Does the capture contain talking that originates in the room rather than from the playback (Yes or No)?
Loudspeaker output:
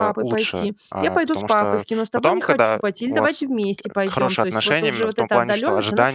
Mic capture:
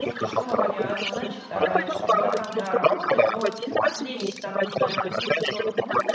Yes